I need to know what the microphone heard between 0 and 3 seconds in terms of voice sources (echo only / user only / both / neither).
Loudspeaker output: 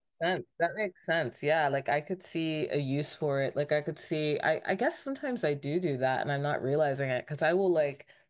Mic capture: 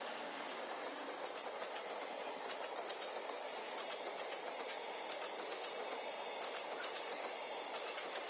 neither